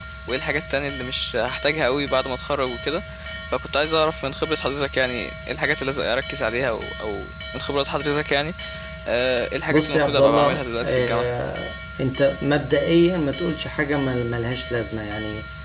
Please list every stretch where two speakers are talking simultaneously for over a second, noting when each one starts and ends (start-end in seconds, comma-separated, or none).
9.7-11.2